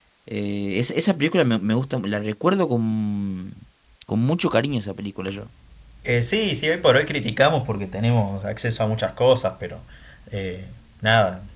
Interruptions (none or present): none